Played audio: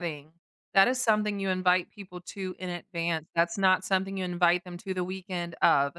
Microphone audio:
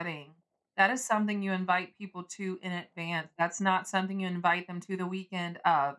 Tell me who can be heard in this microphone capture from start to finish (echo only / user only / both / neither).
echo only